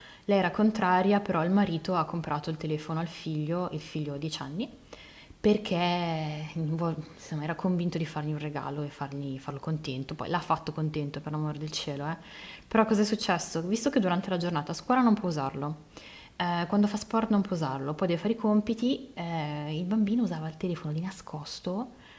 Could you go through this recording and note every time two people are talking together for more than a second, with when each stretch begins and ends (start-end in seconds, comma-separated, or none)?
none